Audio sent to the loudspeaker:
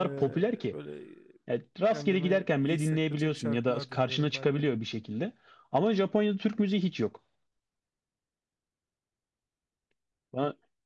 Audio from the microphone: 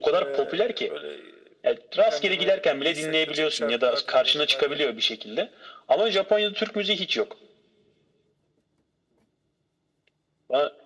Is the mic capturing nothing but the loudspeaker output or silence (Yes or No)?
Yes